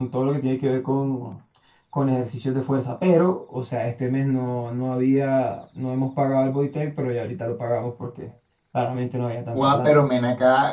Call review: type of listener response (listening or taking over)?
taking over